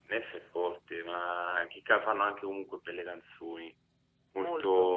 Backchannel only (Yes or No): No